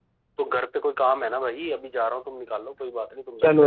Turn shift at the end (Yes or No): Yes